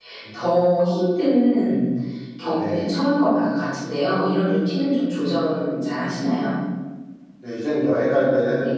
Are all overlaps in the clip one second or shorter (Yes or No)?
Yes